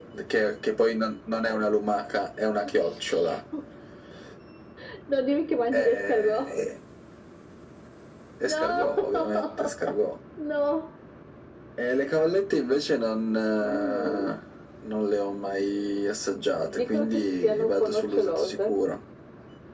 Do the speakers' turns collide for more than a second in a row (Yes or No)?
Yes